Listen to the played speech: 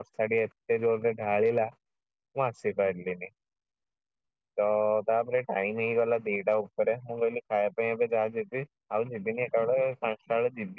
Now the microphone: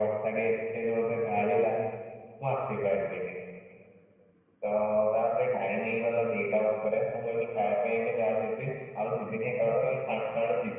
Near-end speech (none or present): none